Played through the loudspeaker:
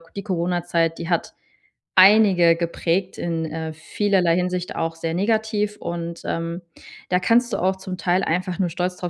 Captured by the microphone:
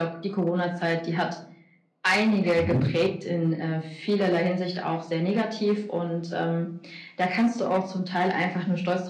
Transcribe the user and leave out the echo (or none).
Mhm.